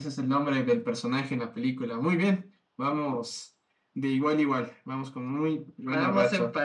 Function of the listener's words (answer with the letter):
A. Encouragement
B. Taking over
B